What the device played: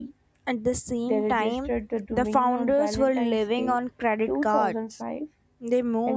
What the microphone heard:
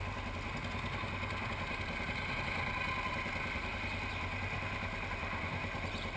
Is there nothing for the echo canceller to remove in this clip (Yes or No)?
Yes